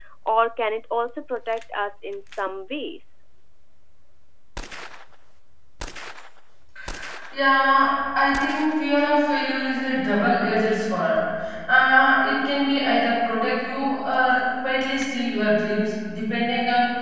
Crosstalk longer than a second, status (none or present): none